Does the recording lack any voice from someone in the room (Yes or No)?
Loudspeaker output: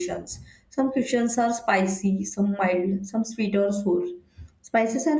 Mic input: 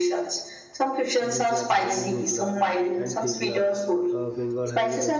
No